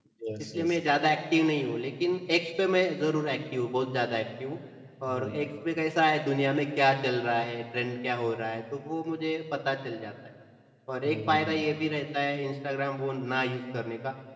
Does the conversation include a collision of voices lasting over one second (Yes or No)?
No